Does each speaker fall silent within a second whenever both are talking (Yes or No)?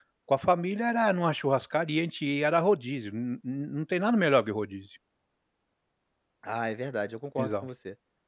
Yes